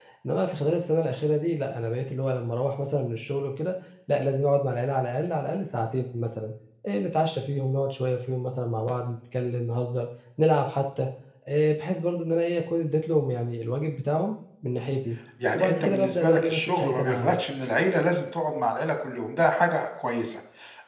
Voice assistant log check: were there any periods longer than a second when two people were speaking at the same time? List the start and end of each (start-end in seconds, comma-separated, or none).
15.5-17.4